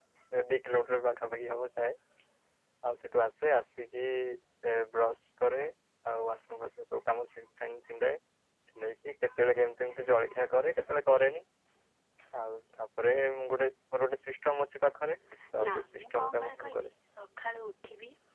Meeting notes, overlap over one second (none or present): present